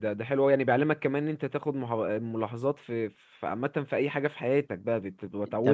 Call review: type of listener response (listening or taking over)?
taking over